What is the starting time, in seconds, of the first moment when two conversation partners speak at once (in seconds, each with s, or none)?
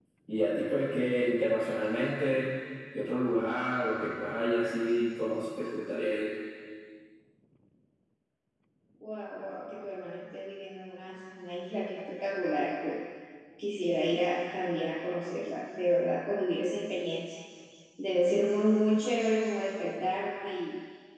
none